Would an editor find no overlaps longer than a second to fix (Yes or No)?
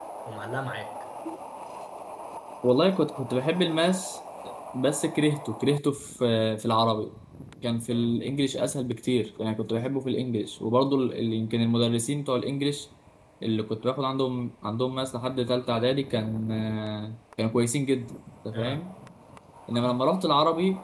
Yes